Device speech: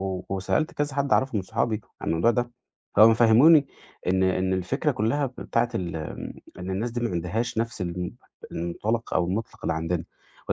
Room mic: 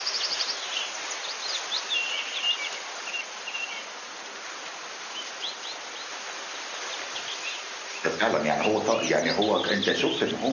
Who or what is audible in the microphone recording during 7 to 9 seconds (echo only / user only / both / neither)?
user only